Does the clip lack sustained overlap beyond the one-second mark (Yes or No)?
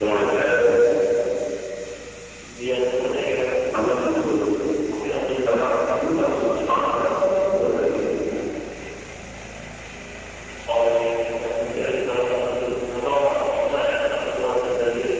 Yes